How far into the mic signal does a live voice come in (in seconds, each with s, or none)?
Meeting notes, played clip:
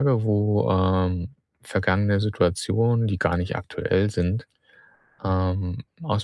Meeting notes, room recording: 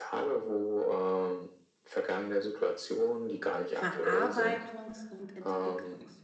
3.7 s